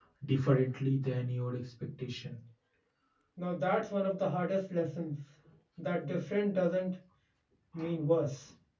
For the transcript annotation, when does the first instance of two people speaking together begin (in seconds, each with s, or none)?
none